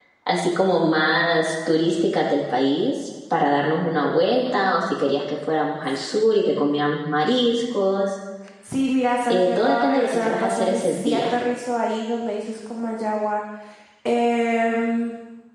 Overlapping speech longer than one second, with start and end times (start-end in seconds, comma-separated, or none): 9.3-11.3